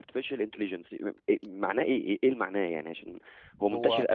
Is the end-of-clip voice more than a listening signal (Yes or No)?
No